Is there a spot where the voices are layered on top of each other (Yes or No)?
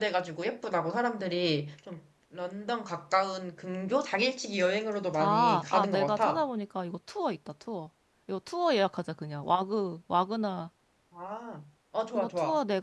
Yes